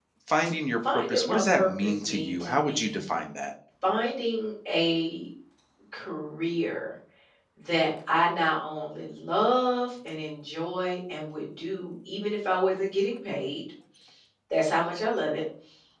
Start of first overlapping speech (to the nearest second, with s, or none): 1 s